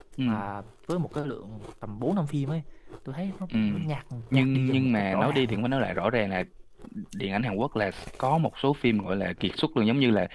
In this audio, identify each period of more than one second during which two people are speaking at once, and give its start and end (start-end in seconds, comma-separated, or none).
4.3-5.6